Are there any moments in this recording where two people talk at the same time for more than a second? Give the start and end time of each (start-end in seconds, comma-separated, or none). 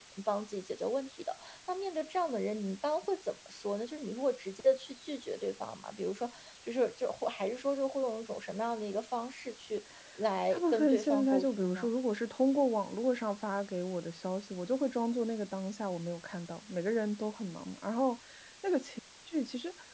10.5-11.9